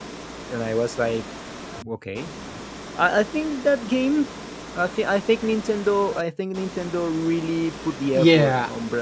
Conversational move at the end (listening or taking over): taking over